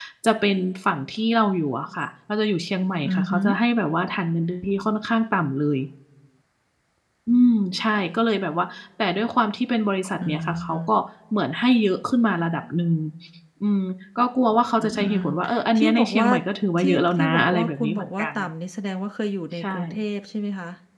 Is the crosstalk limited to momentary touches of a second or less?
No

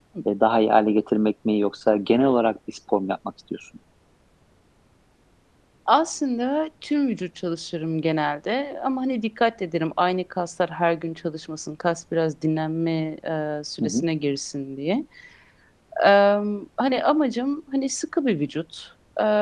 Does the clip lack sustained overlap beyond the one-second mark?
Yes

